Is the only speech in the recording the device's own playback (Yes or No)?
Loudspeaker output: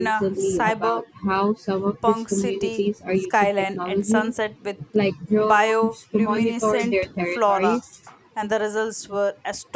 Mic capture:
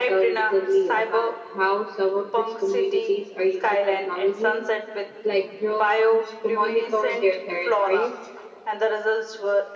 Yes